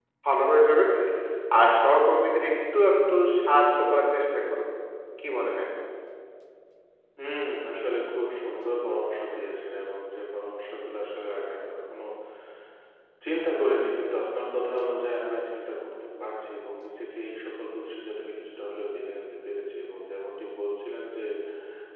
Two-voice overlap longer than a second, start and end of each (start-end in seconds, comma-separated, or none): none